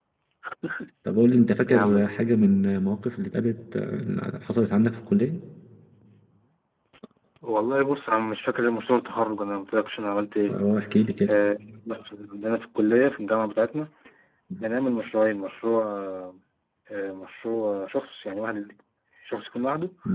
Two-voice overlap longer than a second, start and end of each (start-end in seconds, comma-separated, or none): none